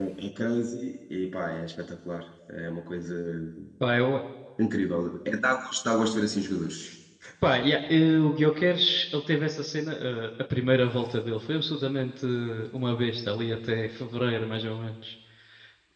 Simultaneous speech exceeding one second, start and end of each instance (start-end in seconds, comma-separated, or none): none